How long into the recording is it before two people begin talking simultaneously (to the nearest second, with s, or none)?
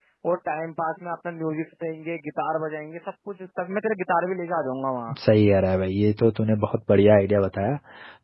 none